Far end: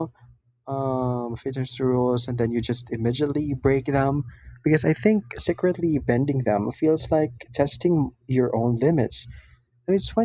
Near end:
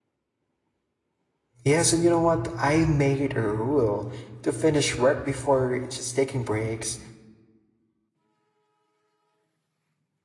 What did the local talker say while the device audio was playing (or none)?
Yes, and you know what? I made it a rule to finish work before just taking breaks,